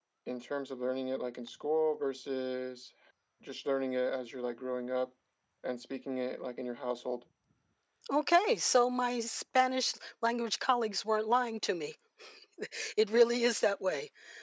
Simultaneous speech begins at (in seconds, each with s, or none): none